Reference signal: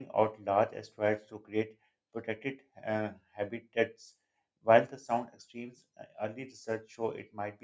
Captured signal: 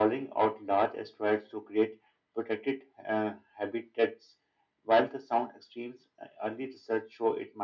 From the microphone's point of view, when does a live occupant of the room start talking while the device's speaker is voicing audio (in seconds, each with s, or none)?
none